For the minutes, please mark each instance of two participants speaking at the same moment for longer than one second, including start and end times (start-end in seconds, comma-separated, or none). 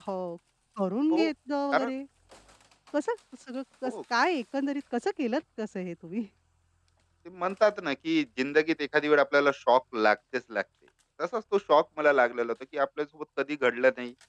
none